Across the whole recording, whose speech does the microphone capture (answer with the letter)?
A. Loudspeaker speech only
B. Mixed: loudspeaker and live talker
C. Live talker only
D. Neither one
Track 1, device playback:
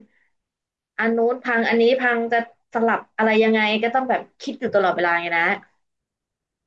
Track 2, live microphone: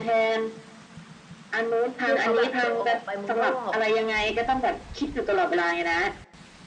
B